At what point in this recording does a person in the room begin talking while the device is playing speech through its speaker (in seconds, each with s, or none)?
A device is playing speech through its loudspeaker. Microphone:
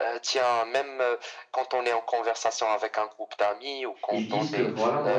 4.1 s